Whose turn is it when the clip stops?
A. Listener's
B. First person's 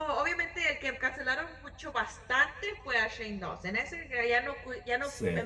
B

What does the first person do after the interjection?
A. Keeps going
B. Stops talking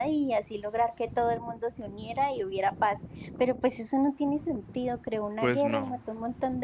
A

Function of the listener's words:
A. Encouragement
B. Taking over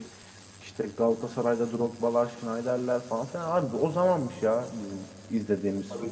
B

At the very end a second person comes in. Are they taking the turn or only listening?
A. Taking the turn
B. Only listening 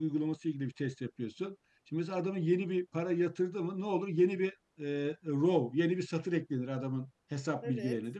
B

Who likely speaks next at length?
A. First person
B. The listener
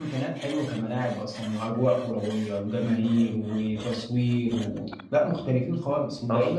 B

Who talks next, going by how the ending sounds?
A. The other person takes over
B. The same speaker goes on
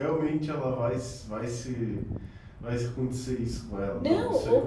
A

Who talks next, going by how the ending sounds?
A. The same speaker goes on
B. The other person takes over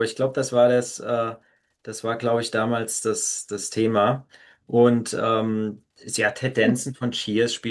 A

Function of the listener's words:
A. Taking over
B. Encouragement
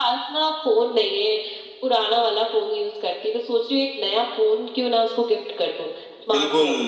A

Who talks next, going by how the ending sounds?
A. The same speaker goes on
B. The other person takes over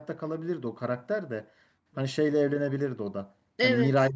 A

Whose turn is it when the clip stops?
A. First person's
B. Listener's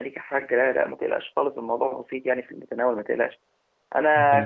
A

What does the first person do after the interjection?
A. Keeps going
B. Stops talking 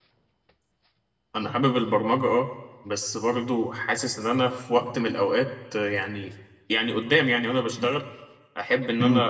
A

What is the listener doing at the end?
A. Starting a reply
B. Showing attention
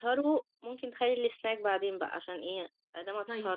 A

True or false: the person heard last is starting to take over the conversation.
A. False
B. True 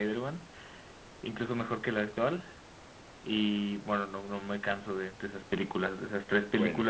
B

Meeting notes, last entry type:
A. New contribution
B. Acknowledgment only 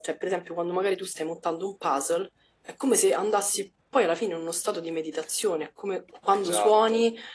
B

